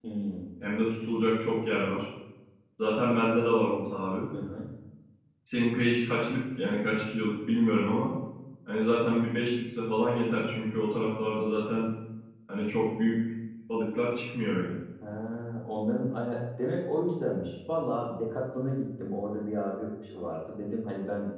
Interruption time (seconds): none

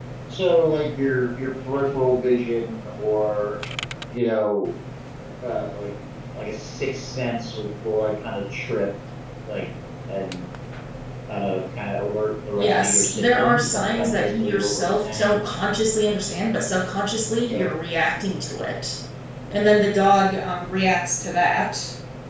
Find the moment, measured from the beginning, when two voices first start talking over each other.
12.6 s

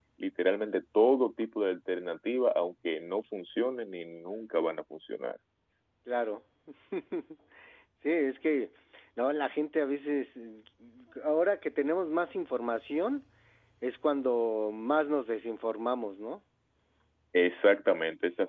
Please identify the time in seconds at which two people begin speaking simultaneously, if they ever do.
none

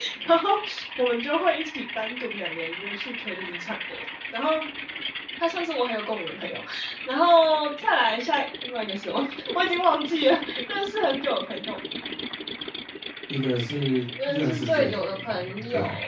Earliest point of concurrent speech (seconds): 14.2 s

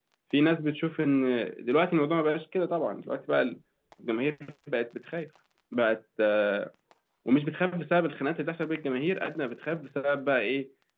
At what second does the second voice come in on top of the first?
none

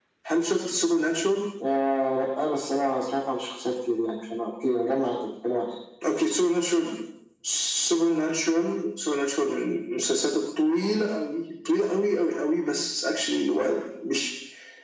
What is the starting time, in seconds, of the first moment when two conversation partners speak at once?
none

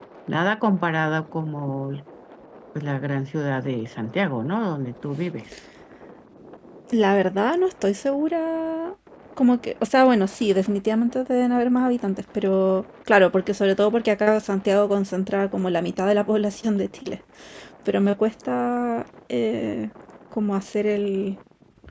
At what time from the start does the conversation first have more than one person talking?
none

